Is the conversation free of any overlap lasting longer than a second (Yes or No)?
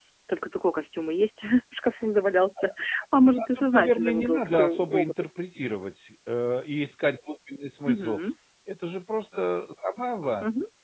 No